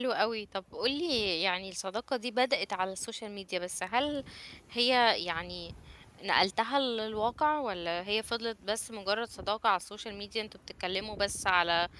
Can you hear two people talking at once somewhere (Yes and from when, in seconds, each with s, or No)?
No